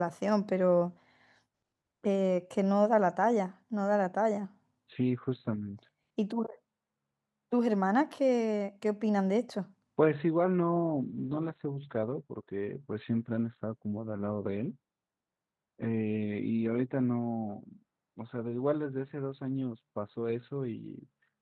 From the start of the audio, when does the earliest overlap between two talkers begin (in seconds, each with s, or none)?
none